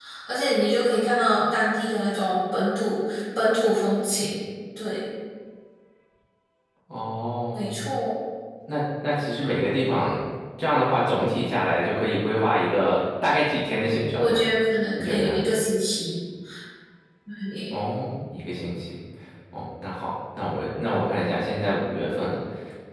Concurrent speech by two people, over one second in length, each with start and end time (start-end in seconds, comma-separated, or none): none